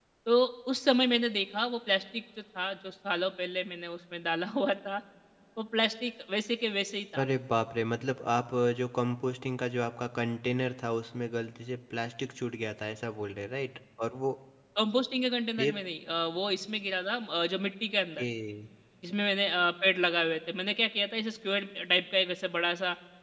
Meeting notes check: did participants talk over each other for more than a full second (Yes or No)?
No